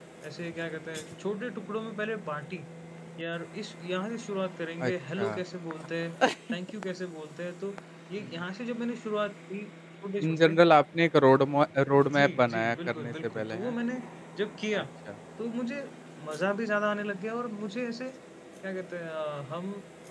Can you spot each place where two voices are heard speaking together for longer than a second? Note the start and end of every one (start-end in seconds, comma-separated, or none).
12.2-13.8